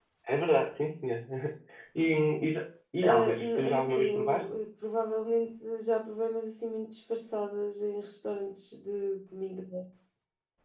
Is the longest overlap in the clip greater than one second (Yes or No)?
Yes